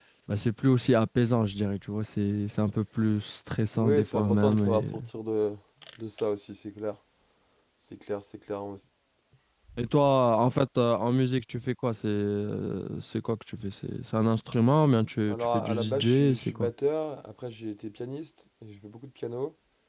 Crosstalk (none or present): present